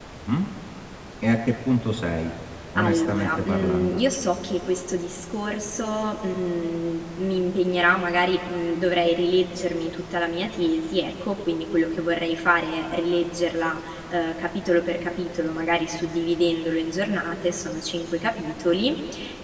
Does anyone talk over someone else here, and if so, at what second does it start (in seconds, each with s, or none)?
2.8 s